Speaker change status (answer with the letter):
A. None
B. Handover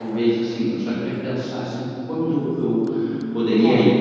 A